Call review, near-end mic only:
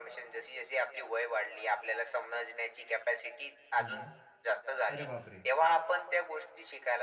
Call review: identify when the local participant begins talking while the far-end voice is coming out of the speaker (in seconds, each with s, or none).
3.8 s